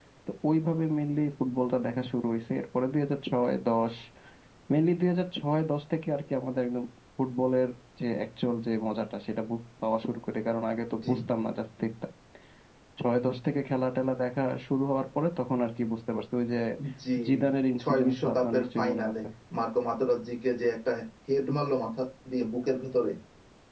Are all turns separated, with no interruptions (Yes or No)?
No